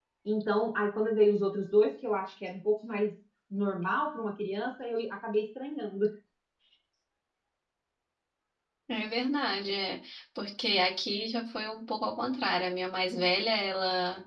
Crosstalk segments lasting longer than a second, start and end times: none

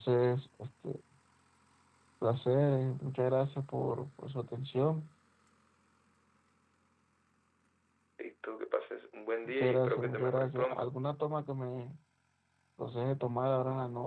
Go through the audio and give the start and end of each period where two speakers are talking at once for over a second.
9.4-10.9

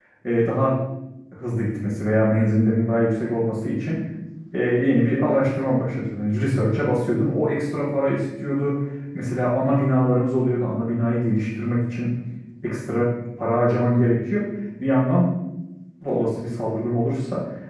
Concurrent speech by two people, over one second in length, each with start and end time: none

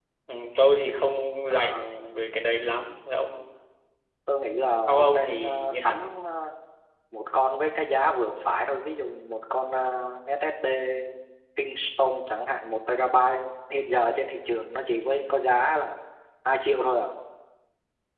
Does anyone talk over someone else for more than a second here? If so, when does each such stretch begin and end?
4.9-6.1

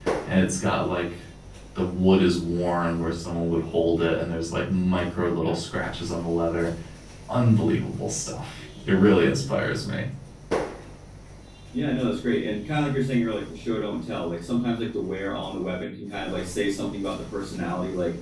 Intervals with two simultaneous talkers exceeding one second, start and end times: none

